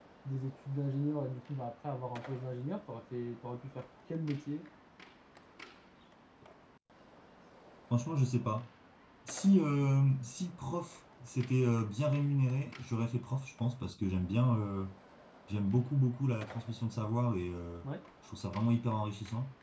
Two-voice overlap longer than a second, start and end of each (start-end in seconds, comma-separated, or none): none